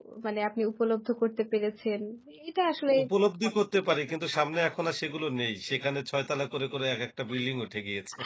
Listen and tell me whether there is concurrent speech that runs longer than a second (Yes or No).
No